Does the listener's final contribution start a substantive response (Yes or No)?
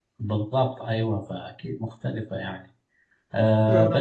No